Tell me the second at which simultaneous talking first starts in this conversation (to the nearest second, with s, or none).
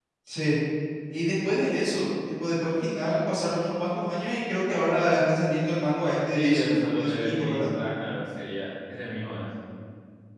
6 s